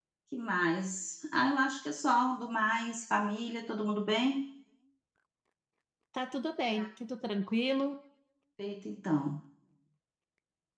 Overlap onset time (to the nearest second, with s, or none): none